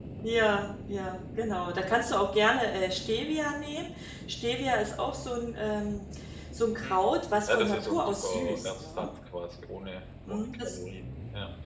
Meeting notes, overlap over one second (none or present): present